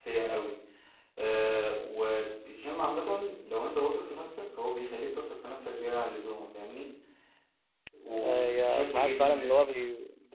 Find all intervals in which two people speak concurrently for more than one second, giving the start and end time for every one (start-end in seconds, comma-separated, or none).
8.2-9.5